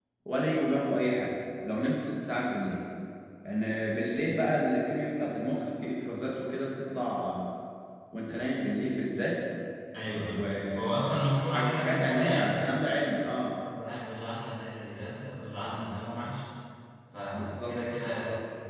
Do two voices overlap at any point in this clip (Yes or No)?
Yes